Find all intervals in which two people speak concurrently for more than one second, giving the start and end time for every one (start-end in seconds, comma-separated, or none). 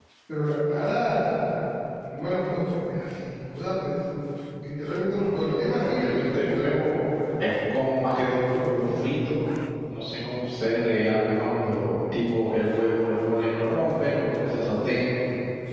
5.2-6.8